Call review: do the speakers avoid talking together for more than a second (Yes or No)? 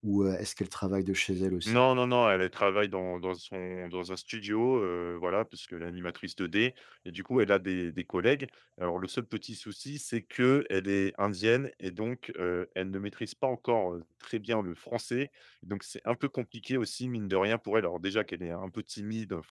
Yes